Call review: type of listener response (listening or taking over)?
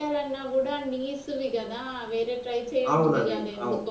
taking over